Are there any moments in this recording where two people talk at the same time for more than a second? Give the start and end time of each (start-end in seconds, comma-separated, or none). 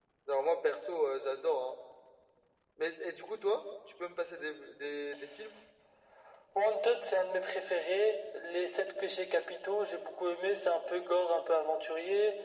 none